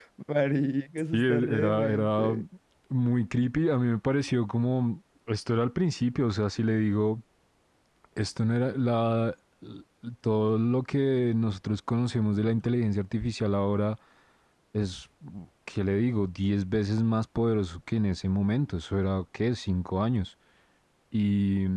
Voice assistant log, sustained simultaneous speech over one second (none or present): present